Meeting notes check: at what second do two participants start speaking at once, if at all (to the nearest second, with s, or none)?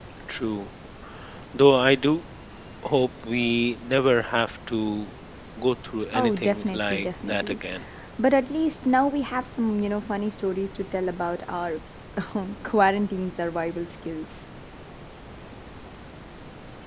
6 s